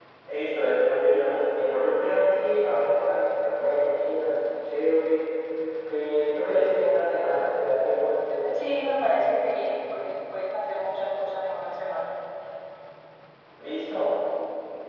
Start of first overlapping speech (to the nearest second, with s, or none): none